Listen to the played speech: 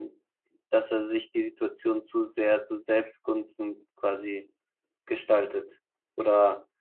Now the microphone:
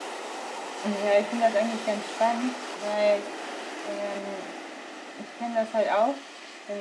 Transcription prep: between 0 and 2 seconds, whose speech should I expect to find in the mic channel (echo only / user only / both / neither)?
user only